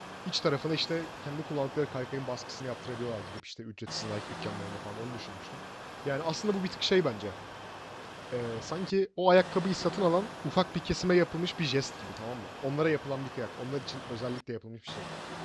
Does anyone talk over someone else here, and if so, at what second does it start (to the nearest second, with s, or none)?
none